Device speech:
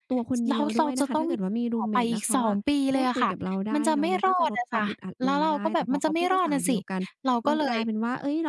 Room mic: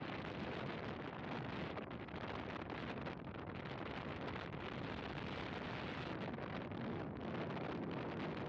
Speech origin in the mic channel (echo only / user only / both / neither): neither